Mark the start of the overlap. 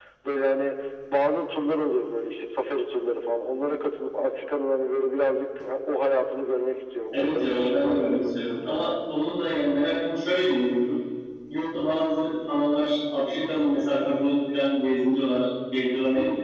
7.1 s

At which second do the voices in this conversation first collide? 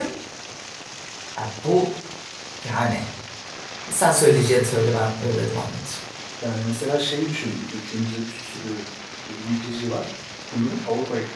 none

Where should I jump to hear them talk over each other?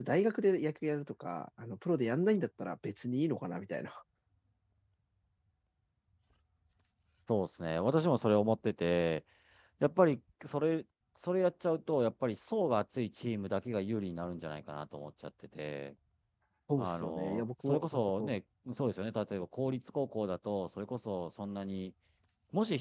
16.8 s

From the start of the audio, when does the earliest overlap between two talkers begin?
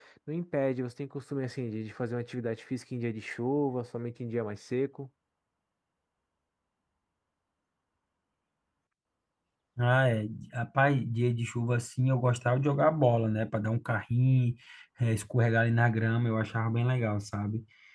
none

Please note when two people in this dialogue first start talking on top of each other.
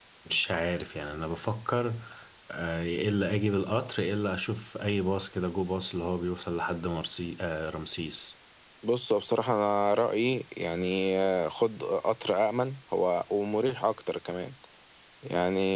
none

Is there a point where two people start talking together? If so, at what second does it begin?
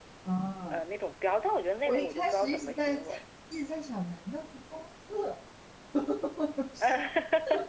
1.9 s

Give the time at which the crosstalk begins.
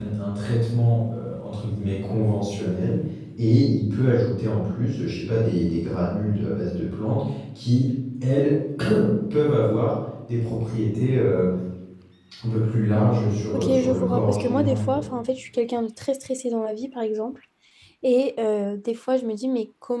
13.5 s

